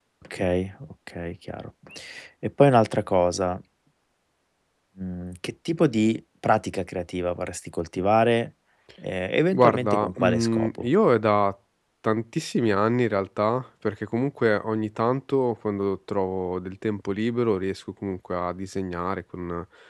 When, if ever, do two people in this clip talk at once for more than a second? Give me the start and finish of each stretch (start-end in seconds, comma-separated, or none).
9.5-10.9